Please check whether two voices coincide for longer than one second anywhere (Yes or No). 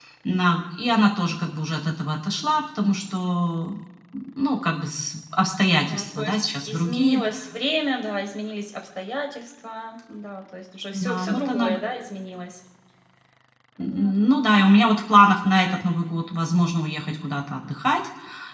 Yes